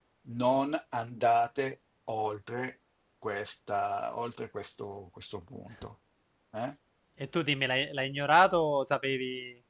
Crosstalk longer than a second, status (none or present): none